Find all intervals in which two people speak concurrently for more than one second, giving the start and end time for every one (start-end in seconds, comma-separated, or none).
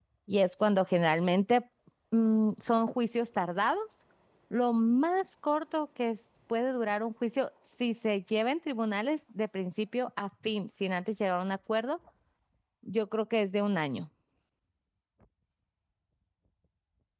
none